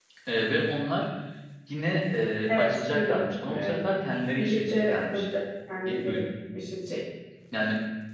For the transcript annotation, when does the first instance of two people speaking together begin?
3 s

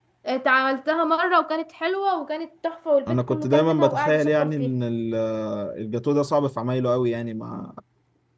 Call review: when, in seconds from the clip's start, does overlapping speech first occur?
3 s

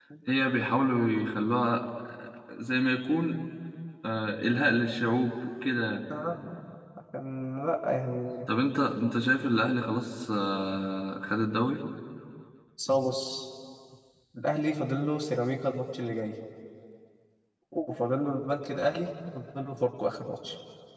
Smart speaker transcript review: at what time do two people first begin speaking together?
none

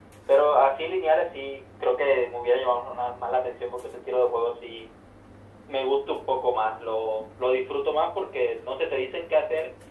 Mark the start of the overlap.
none

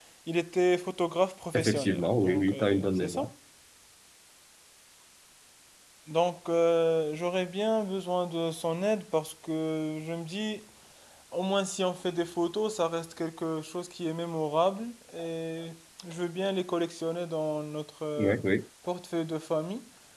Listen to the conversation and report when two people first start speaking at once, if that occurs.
2 s

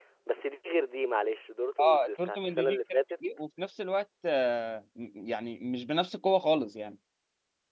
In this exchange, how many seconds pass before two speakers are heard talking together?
2 s

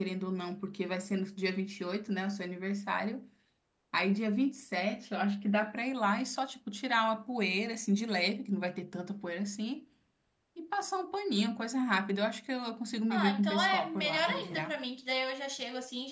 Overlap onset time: 13 s

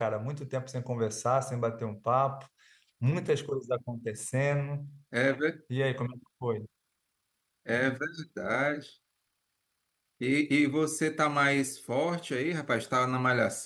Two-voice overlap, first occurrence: none

